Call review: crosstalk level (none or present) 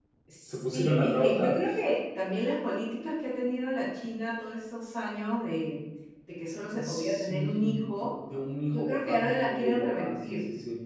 present